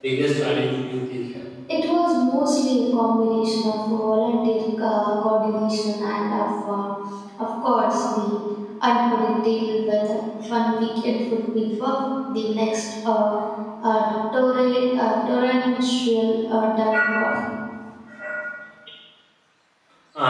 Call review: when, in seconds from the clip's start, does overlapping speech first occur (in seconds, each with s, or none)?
none